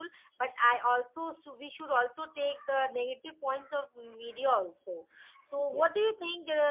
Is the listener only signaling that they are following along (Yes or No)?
Yes